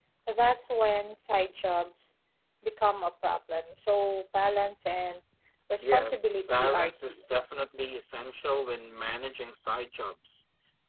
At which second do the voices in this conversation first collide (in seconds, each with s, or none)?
5.8 s